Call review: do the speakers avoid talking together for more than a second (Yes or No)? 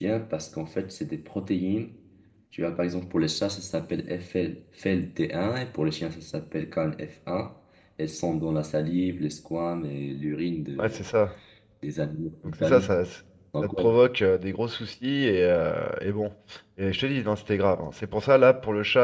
Yes